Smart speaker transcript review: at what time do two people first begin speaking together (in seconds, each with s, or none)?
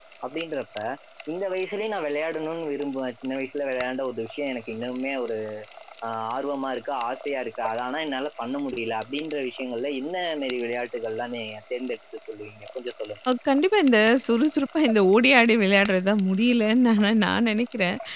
none